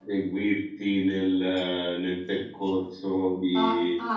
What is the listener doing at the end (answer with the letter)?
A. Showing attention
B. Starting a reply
B